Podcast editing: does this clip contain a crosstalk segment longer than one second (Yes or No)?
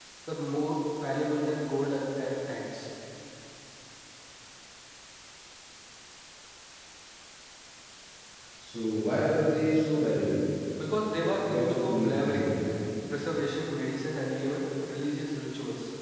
Yes